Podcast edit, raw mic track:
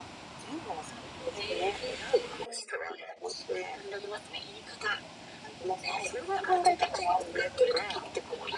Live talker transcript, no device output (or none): none